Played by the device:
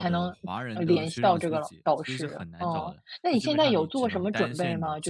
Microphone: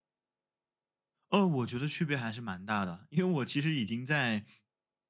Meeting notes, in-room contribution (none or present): present